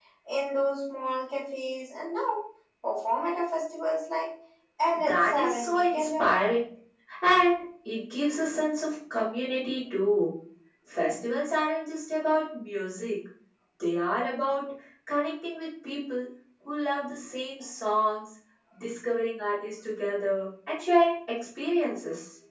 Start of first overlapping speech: 5.0 s

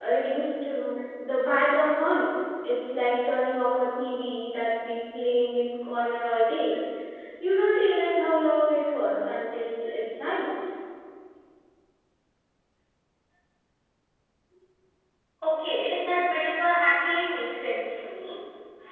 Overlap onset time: none

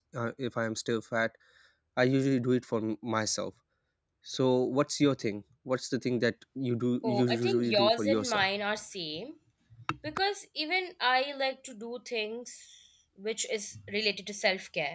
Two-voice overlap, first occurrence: 7.0 s

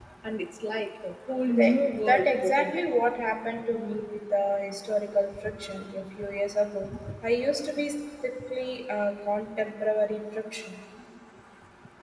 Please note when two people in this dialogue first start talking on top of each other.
1.4 s

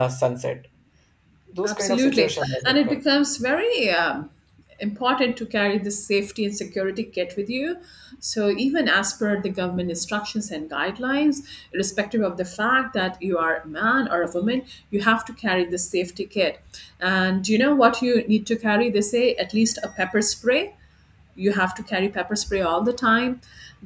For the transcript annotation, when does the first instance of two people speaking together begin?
1.6 s

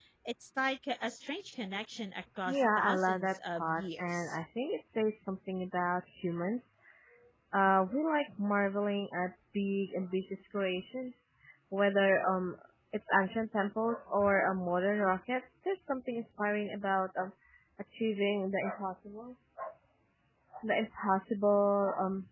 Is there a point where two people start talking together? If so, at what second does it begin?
2.5 s

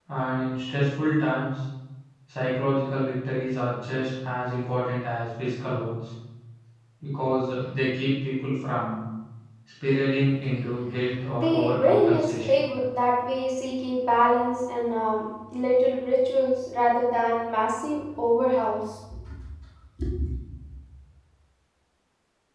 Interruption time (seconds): 11.4 s

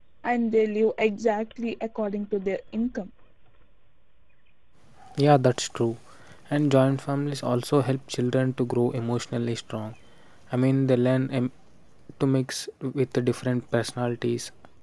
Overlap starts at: none

